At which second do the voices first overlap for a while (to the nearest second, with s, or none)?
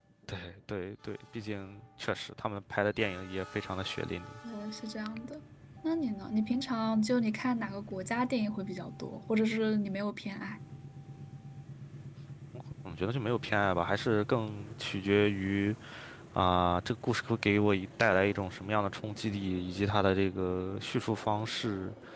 none